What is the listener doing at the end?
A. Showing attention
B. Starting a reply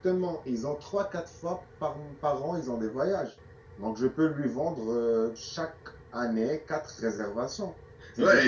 B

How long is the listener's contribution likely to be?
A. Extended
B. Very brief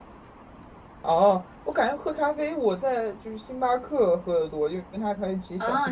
A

